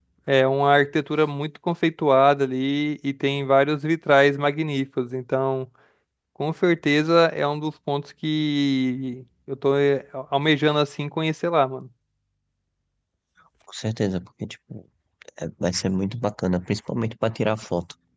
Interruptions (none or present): none